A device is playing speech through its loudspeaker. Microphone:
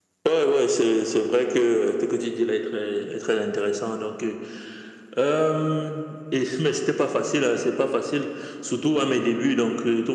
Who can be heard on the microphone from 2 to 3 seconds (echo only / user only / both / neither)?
echo only